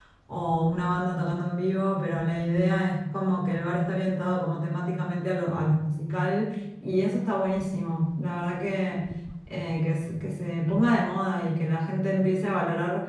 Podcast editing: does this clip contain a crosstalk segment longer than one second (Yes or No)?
No